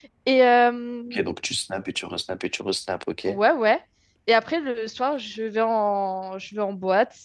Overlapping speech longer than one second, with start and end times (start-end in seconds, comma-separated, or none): none